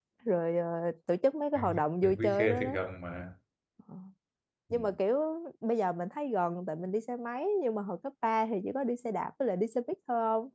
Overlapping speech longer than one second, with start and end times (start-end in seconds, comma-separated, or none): 1.6-2.8